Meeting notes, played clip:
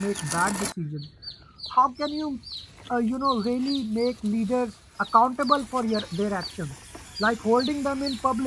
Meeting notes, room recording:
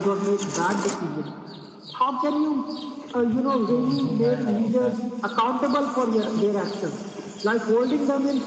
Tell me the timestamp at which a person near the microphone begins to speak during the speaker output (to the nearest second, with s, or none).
3 s